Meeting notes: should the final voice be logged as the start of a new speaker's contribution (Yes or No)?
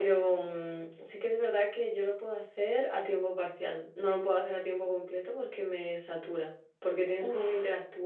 No